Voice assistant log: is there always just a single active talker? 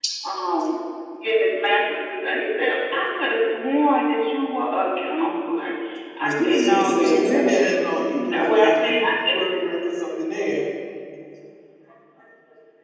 No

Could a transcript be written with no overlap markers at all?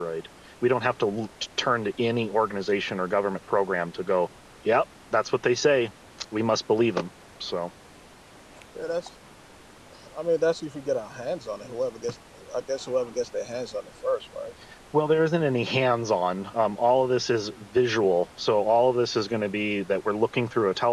Yes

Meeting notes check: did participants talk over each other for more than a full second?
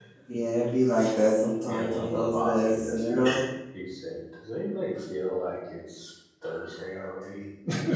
Yes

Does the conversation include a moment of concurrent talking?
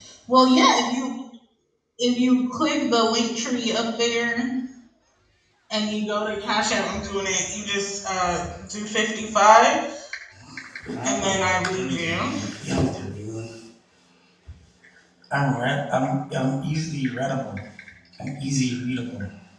Yes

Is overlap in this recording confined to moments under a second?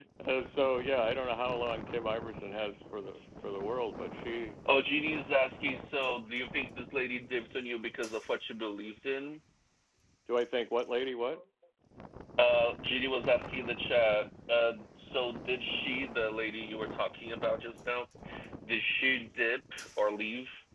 Yes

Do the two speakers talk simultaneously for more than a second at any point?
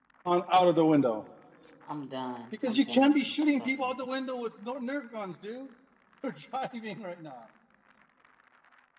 Yes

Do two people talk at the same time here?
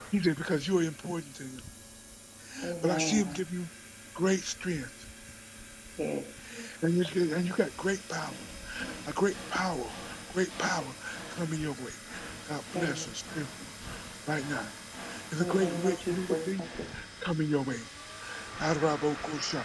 Yes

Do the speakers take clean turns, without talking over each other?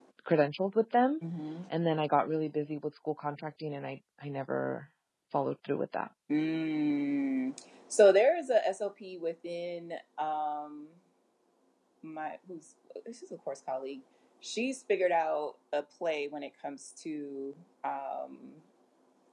Yes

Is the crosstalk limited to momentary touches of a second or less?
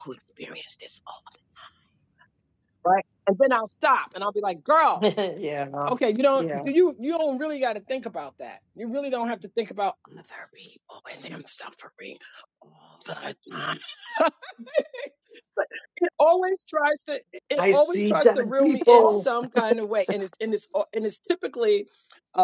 No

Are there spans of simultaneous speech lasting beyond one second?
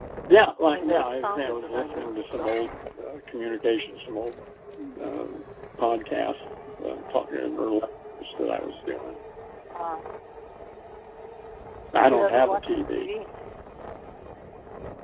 Yes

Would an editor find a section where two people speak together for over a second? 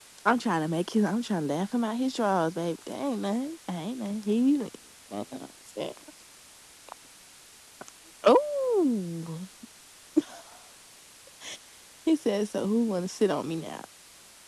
No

